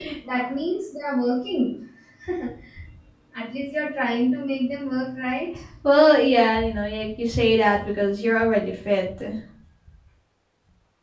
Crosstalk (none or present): none